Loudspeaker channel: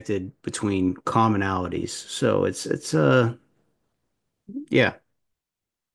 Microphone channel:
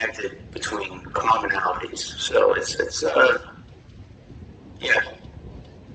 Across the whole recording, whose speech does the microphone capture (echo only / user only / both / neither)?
echo only